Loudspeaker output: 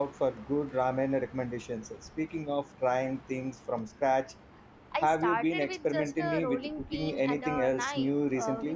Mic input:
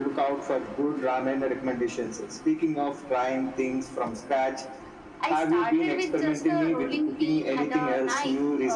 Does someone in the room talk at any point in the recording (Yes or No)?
No